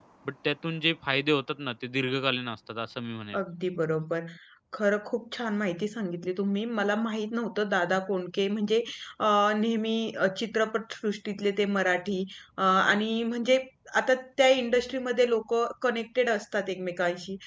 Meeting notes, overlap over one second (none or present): none